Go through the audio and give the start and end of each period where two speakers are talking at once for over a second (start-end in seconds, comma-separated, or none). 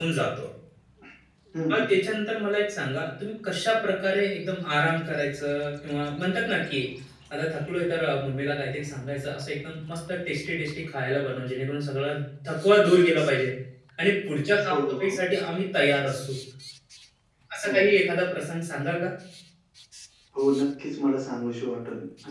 none